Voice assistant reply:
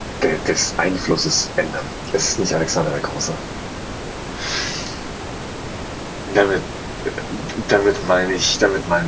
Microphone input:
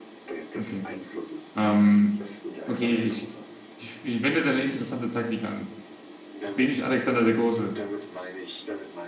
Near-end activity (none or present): present